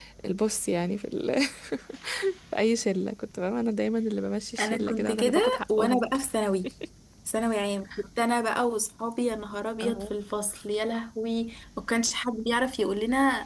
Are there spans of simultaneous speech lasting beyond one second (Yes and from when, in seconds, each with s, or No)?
Yes, from 4.6 s